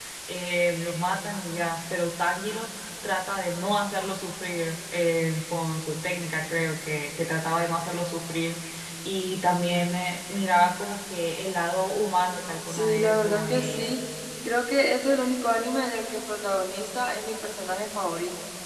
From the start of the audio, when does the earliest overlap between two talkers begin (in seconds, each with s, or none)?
12.7 s